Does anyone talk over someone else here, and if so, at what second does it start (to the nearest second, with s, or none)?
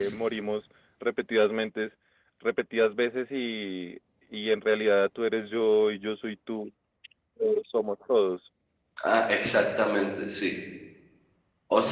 none